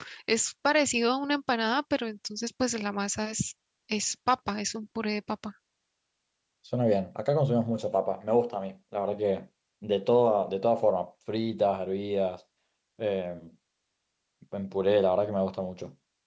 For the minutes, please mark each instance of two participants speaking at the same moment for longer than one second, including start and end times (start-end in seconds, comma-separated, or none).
none